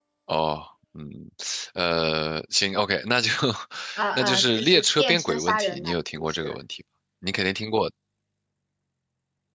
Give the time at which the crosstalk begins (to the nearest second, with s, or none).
4 s